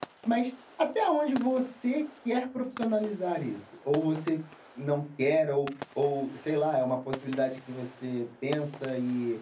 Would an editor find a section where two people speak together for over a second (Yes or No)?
No